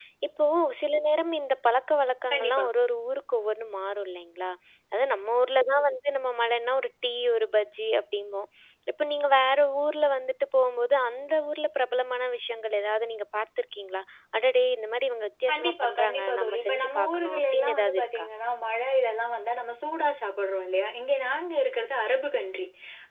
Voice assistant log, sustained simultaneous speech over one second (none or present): present